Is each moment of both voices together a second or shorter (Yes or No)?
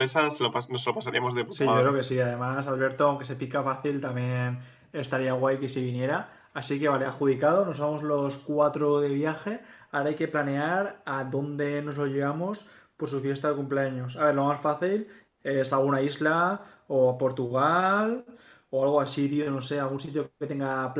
Yes